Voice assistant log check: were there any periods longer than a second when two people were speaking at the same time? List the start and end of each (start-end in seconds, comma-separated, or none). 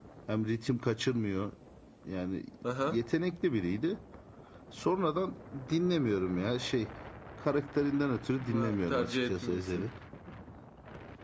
8.5-9.9